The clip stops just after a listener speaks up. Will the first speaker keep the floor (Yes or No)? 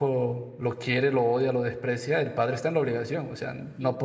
Yes